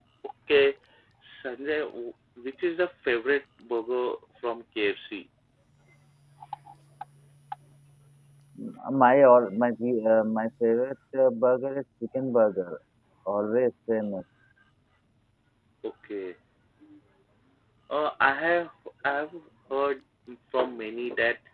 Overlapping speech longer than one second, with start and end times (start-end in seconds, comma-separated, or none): none